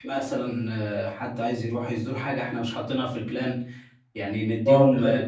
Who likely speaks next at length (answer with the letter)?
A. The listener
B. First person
A